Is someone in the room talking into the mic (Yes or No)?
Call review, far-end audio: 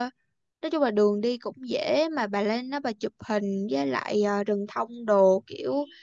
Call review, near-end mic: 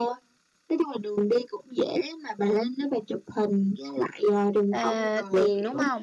Yes